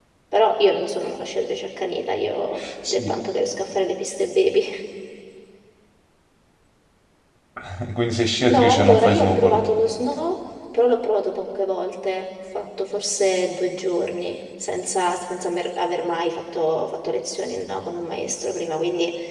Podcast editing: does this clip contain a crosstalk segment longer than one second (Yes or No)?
Yes